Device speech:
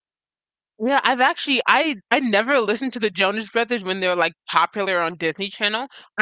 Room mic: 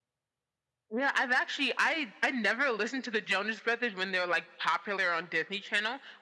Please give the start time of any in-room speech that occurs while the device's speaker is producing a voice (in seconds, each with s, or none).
none